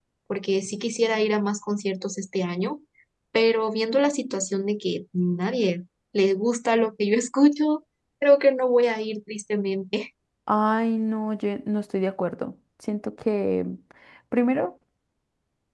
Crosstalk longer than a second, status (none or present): none